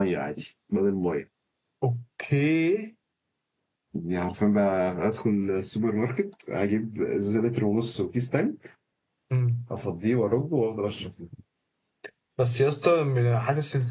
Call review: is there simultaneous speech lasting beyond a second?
No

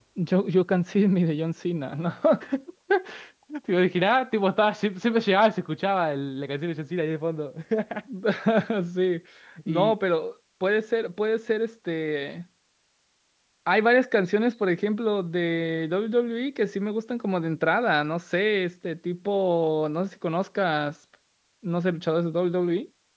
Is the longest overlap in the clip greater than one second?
No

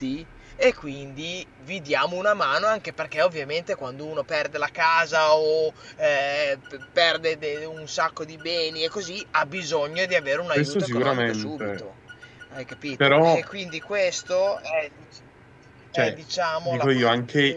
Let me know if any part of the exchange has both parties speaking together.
Yes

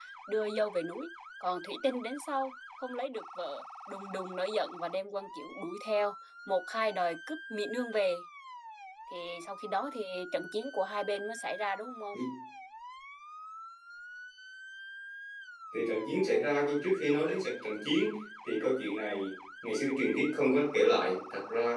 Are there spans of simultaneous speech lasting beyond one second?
No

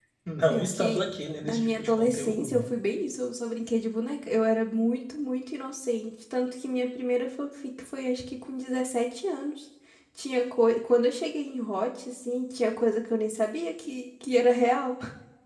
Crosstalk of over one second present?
Yes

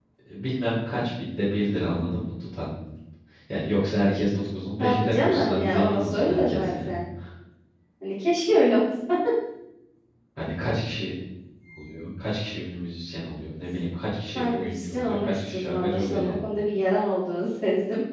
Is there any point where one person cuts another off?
Yes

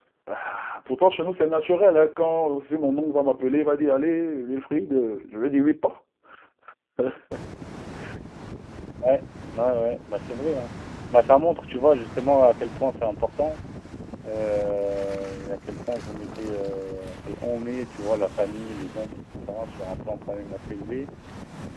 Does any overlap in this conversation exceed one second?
No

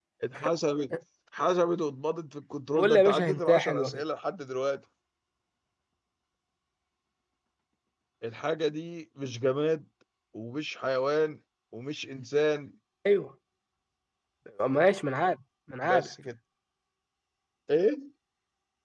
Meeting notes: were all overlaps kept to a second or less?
No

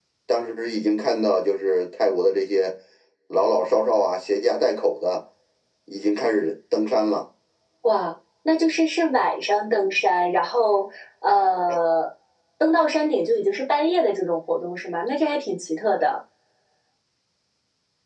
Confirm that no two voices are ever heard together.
Yes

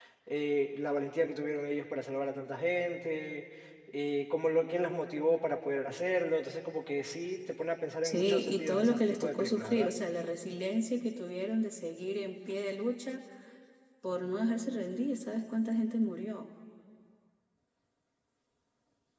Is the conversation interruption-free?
No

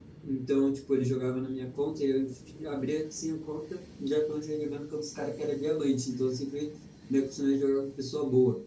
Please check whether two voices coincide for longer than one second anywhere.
No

